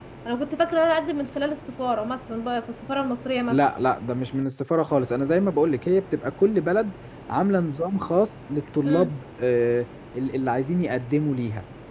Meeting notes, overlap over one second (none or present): none